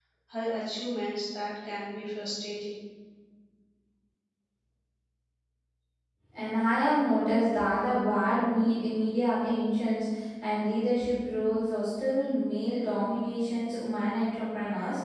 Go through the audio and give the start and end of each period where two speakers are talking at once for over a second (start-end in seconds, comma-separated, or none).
none